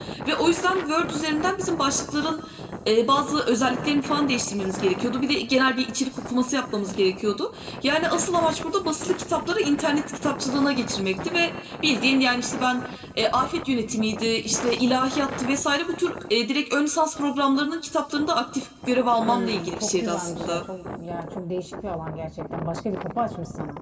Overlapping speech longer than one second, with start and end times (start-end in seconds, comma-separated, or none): 19.2-20.6